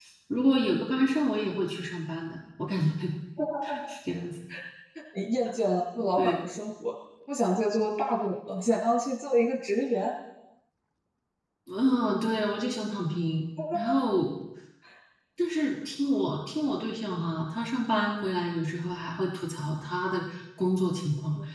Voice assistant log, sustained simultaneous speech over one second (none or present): none